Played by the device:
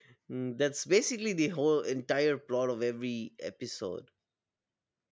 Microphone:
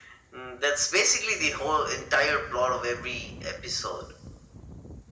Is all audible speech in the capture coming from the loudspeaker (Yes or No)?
Yes